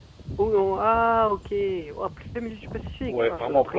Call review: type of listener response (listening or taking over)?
taking over